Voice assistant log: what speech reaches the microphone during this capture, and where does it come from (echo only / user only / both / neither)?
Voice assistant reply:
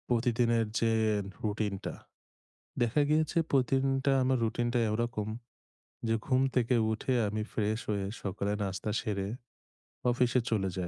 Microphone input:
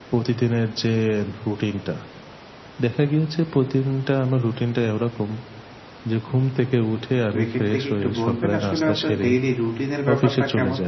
both